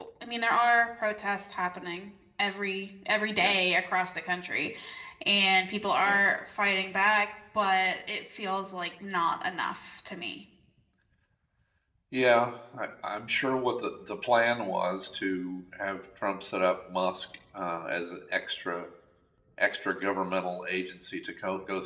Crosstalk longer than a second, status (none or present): none